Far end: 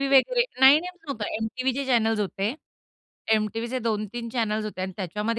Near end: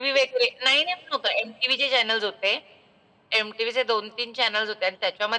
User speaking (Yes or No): No